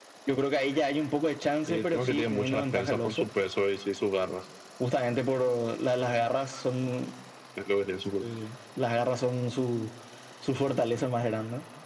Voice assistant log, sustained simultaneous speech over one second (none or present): present